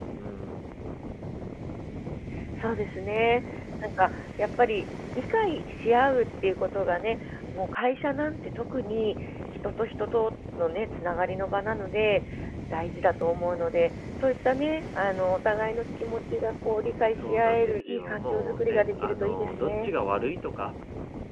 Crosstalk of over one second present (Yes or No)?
Yes